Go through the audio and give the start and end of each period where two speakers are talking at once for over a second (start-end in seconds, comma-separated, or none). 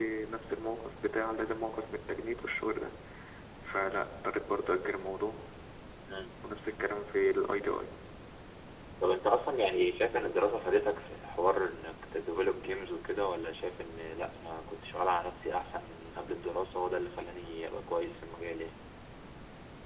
none